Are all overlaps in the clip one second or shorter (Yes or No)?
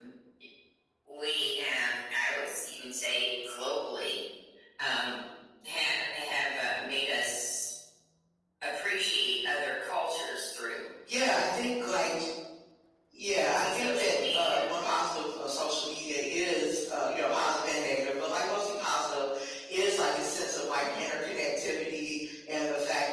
No